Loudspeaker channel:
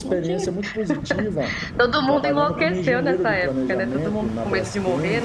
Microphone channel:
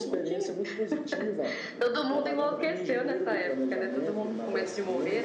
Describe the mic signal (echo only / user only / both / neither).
echo only